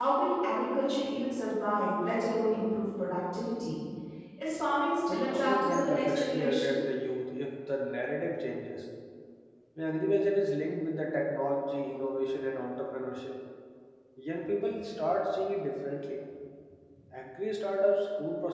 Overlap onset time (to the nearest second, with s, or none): 5 s